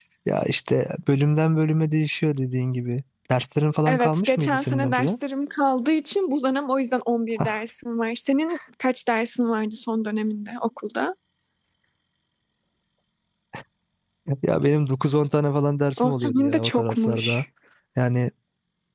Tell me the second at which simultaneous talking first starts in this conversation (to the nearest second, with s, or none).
4 s